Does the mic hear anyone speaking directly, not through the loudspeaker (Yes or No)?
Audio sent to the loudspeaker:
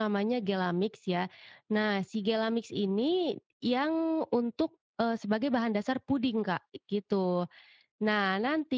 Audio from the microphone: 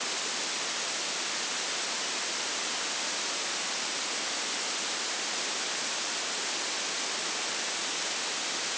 No